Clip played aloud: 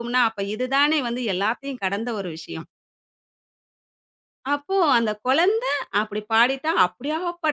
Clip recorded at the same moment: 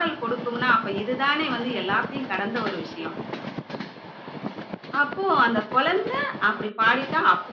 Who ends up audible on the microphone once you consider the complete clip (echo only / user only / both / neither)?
echo only